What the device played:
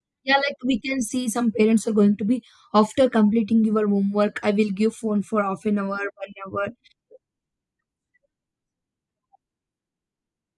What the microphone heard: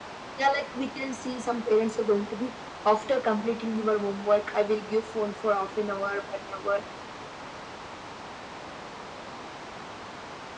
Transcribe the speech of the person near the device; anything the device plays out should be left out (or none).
none